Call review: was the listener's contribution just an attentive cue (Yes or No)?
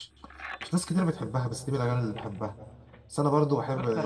Yes